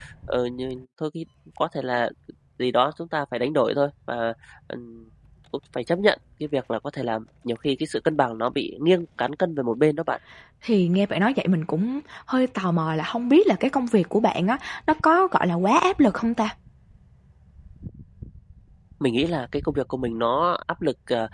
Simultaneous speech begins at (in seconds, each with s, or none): none